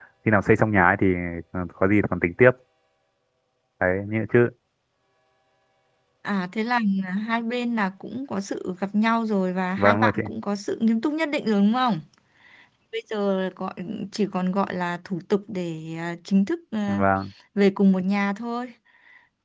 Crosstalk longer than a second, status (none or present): none